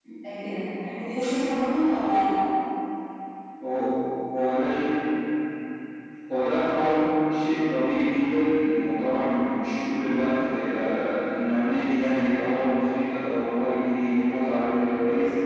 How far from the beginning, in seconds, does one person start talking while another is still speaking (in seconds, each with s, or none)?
none